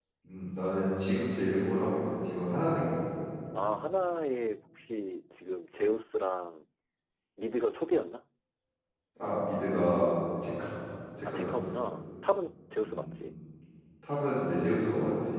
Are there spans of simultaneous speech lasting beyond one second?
No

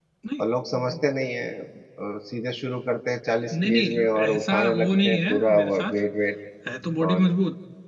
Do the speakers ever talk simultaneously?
Yes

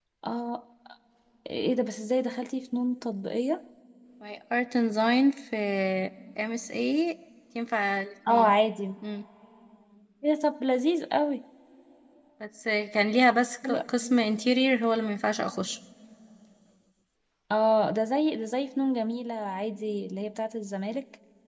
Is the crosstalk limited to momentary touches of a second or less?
Yes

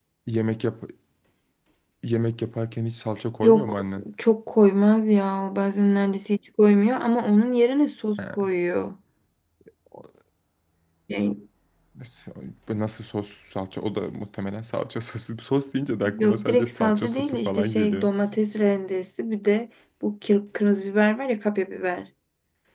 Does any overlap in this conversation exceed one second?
Yes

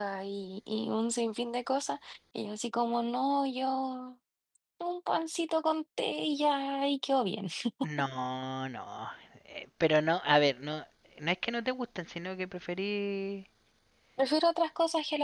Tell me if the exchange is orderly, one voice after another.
Yes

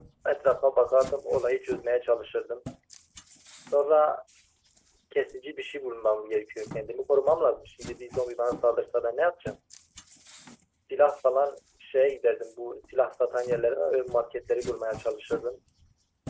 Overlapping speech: No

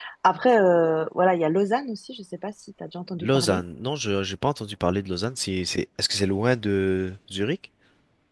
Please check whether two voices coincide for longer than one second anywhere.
No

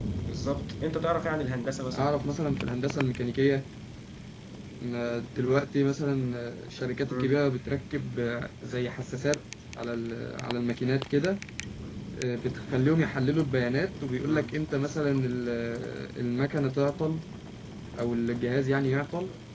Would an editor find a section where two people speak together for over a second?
No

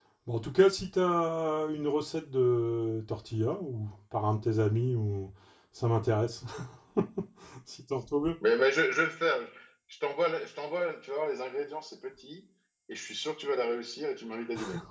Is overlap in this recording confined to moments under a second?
Yes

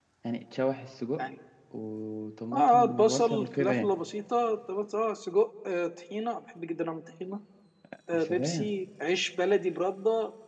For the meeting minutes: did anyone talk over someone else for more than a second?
Yes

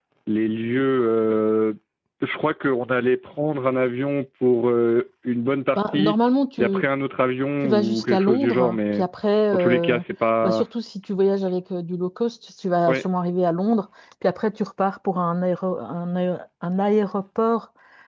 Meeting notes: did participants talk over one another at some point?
Yes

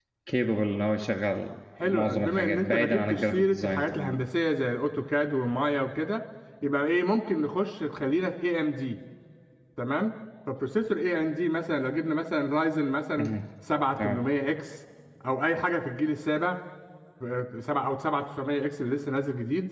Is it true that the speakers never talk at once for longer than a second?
No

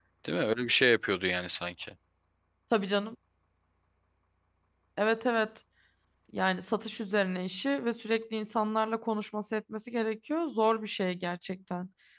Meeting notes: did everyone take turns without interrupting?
Yes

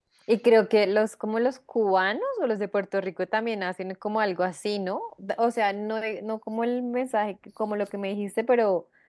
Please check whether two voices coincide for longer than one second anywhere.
No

